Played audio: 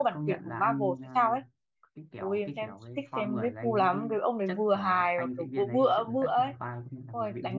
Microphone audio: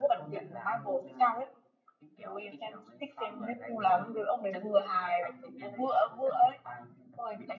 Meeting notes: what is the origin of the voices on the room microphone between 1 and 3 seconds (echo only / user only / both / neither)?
echo only